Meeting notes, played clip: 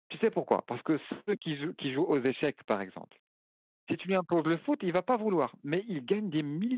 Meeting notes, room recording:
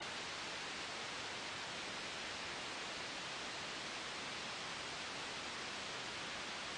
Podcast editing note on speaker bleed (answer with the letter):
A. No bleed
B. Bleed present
A